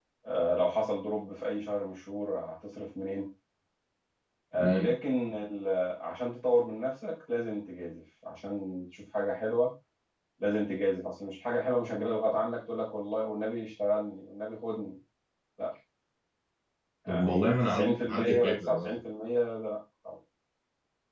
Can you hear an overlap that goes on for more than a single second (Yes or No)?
Yes